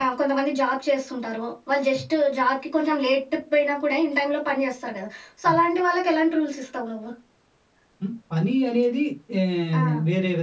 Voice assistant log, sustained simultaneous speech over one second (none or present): none